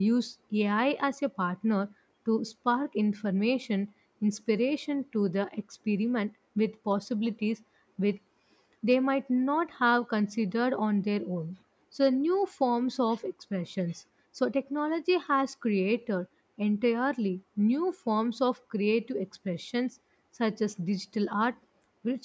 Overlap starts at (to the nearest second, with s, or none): none